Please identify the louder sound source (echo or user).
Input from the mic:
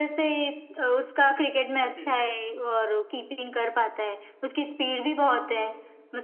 echo